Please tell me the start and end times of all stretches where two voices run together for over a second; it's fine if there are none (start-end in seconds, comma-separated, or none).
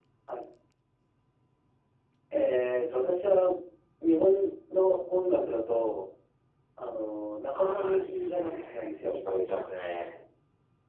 7.5-9.2